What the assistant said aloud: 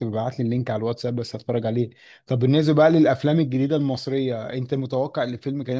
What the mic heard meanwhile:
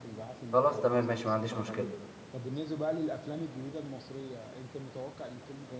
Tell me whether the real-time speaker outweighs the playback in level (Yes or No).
Yes